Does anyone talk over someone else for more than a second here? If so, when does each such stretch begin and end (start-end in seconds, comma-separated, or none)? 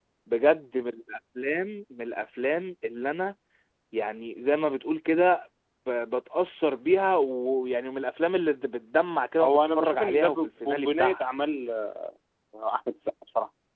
9.4-11.2